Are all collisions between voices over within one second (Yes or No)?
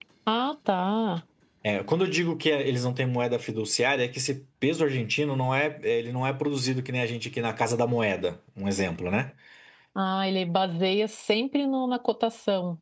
Yes